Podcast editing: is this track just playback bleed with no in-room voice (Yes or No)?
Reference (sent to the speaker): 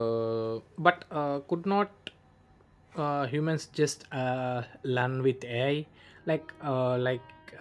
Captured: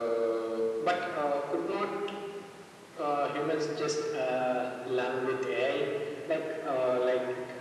Yes